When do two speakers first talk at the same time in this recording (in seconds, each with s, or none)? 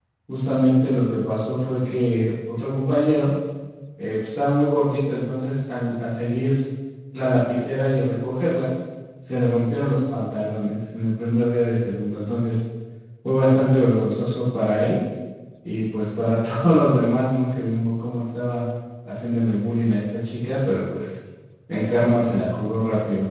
none